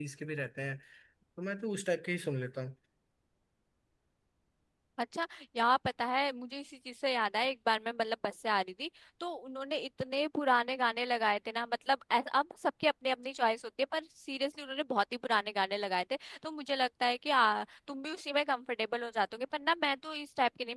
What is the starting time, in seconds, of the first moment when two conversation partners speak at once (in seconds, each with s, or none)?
none